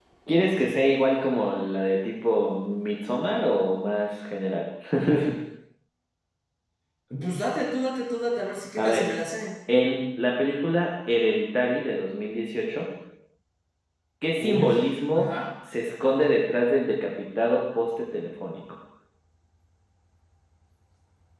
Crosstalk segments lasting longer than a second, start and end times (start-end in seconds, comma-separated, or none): none